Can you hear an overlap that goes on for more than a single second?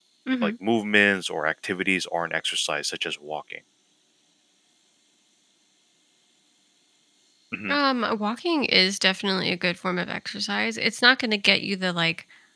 No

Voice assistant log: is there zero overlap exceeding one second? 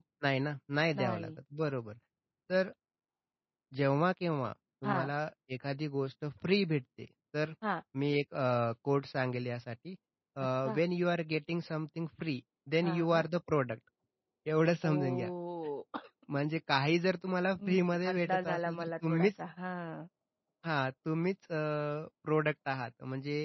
No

